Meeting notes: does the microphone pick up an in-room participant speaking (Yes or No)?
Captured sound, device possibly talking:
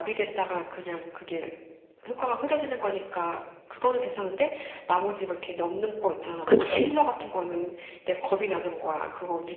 Yes